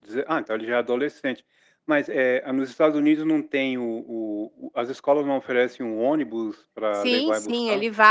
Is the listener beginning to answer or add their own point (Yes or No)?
Yes